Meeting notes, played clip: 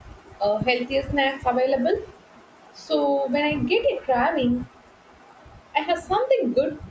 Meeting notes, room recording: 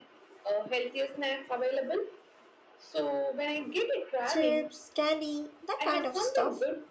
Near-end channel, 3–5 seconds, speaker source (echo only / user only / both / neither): both